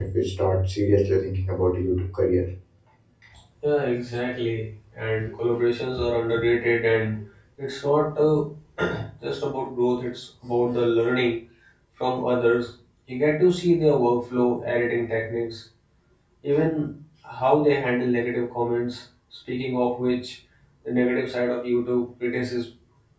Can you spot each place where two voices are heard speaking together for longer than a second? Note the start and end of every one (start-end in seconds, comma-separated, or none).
none